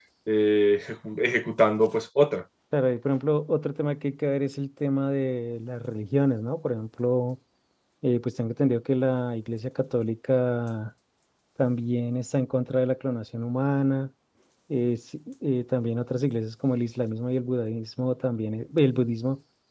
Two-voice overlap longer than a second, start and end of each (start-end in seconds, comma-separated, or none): none